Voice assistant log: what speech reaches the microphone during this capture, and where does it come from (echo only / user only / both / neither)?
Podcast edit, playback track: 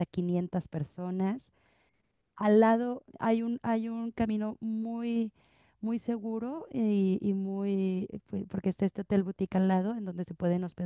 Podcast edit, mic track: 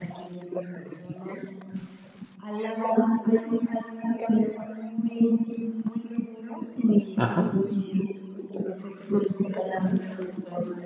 both